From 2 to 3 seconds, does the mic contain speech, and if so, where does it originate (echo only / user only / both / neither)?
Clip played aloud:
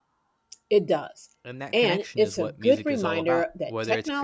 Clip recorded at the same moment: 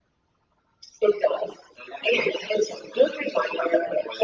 echo only